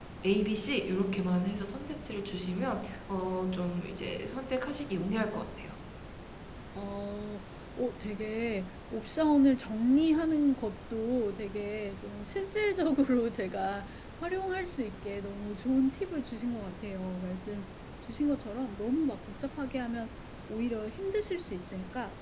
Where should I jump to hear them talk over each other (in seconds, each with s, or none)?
none